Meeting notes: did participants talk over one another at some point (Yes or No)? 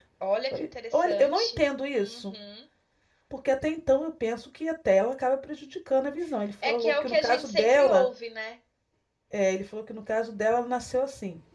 Yes